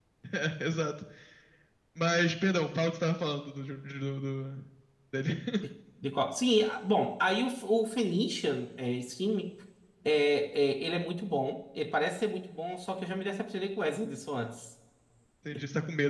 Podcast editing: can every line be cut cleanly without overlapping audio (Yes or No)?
Yes